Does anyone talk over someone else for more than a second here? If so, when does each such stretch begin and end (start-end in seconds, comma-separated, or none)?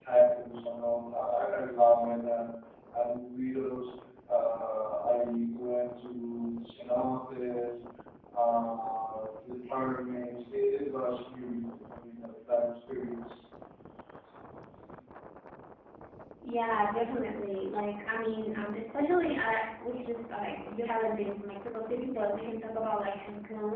none